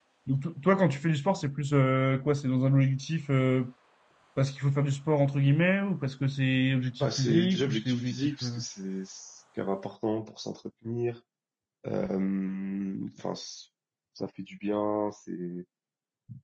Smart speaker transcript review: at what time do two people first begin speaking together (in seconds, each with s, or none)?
7.0 s